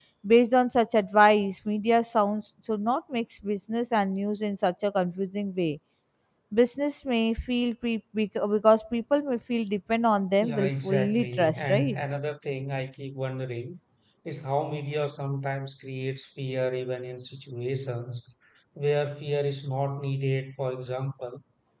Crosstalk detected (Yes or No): Yes